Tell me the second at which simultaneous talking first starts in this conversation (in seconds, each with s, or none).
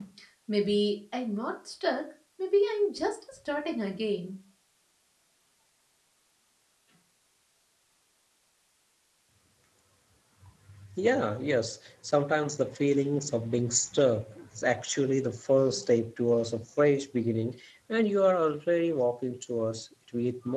none